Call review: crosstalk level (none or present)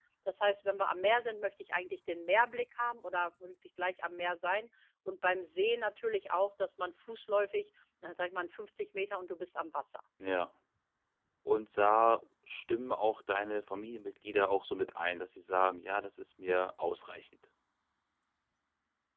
none